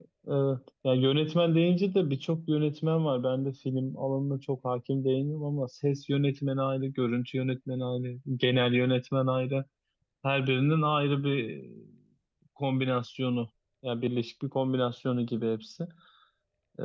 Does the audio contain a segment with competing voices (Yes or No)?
No